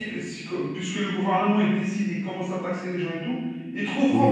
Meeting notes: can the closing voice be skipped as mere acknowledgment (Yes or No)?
Yes